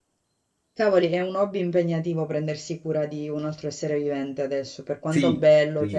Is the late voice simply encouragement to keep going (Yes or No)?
No